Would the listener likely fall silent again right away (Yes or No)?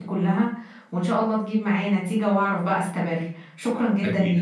No